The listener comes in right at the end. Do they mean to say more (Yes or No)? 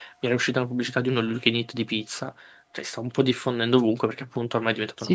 Yes